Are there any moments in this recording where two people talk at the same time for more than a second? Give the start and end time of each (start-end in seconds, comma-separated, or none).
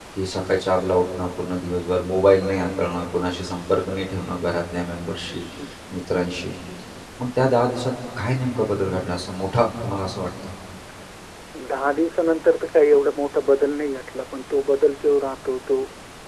none